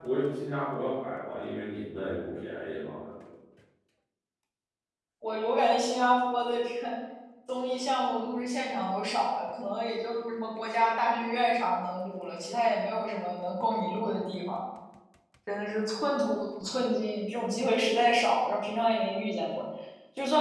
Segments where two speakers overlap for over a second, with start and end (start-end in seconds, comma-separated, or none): none